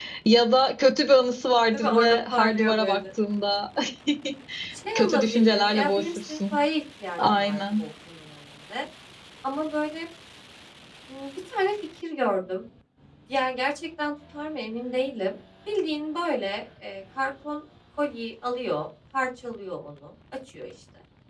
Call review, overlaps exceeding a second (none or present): present